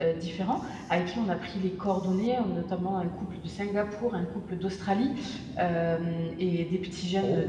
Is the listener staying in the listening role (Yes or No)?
Yes